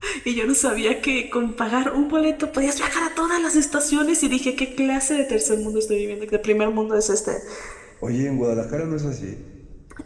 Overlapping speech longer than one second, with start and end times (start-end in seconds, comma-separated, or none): none